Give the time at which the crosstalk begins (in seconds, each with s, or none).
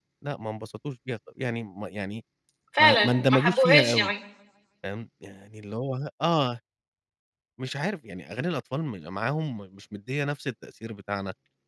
2.8 s